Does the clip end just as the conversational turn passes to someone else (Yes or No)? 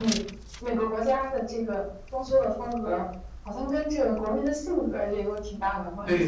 Yes